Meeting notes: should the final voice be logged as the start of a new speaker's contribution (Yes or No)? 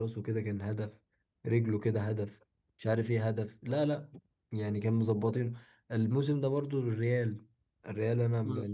Yes